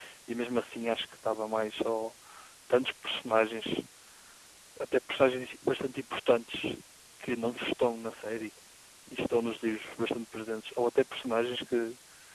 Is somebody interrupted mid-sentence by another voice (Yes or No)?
No